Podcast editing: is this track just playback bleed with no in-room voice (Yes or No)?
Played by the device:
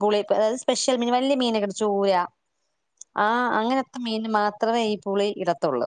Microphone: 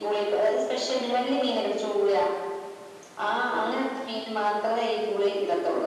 Yes